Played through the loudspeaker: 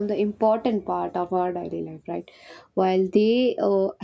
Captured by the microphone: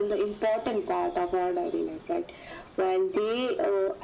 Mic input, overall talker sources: echo only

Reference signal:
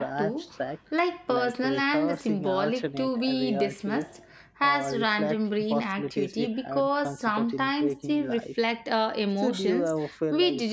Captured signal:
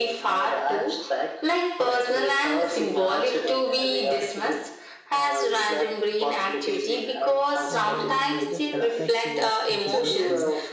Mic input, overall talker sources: both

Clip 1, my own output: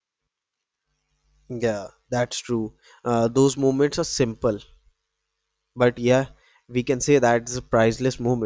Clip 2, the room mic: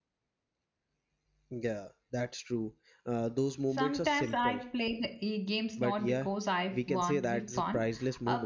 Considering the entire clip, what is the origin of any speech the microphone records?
both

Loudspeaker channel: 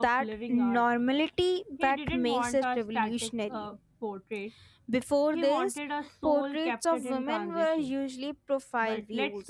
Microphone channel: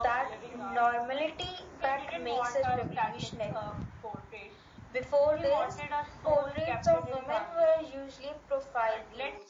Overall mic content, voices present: echo only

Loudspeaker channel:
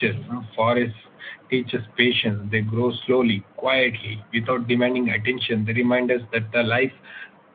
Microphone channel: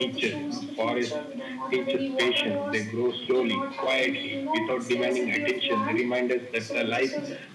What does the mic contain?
both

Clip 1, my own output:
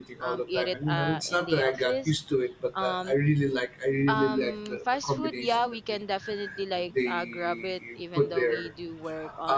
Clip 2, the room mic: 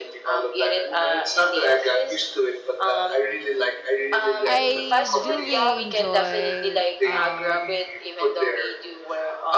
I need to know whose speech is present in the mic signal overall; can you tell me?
both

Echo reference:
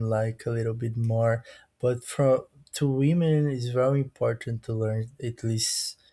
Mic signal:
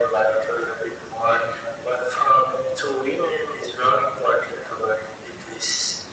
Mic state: echo only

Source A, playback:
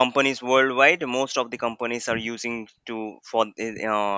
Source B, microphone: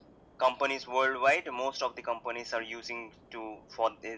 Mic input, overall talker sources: echo only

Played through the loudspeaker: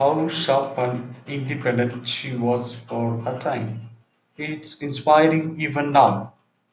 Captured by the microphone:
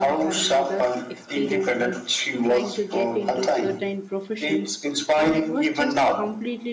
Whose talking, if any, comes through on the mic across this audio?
both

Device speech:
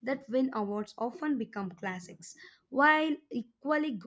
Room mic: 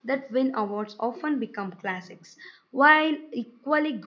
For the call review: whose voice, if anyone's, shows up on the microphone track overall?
echo only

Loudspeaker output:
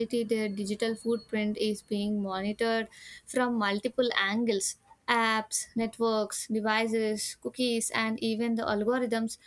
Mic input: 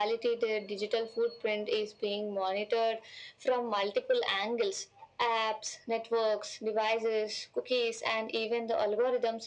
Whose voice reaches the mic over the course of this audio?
echo only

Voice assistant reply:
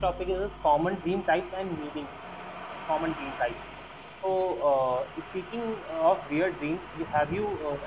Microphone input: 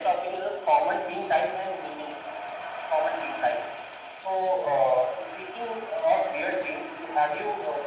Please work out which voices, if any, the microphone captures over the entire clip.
echo only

